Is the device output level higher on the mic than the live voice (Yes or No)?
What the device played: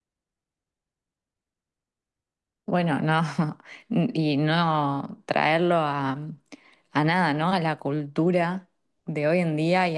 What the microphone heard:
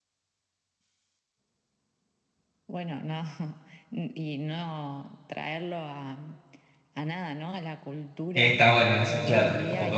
No